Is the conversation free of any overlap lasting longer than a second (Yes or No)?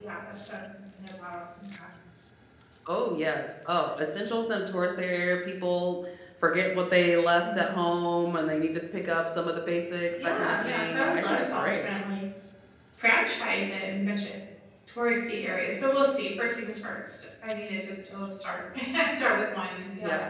No